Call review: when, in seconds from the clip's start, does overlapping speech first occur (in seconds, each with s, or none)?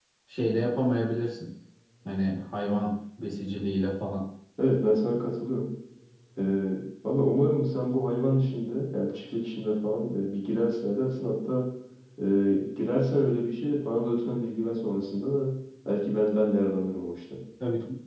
none